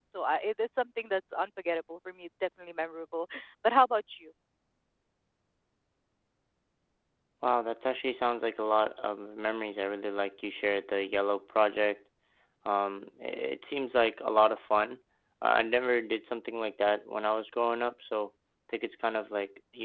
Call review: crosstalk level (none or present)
none